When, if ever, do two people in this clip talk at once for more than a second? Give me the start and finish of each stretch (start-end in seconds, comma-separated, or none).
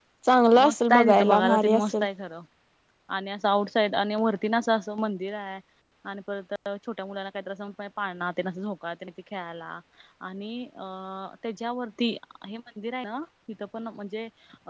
0.6-2.0